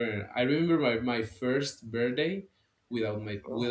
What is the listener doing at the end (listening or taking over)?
listening